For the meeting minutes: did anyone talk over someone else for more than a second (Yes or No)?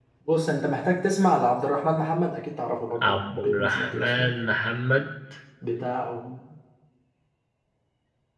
Yes